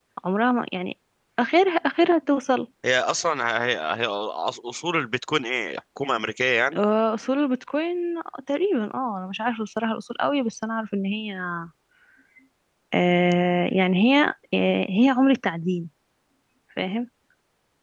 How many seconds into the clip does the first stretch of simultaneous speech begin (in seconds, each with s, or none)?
none